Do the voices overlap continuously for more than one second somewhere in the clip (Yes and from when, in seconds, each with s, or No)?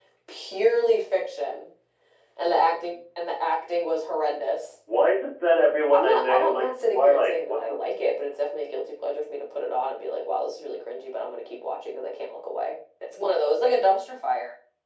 Yes, from 5.9 s